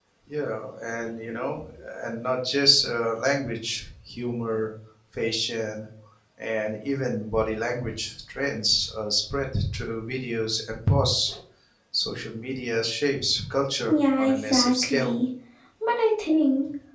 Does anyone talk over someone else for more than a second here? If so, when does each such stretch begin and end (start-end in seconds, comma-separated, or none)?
13.9-15.1